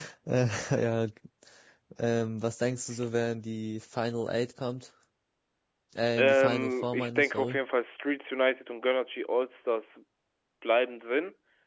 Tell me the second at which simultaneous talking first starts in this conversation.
6.2 s

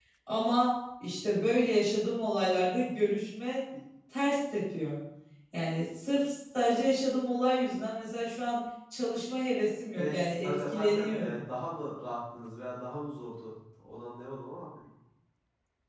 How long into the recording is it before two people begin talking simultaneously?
10.0 s

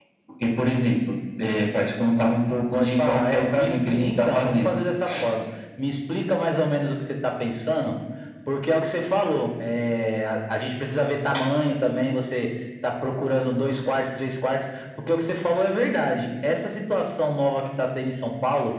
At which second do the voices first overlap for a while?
2.7 s

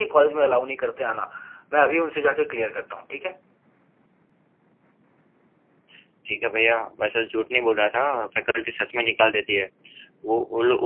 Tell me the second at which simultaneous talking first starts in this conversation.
none

